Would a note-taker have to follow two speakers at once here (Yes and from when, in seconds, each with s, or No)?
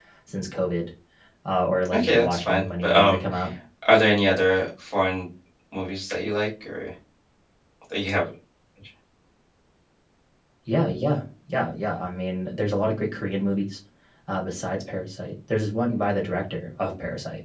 Yes, from 1.9 s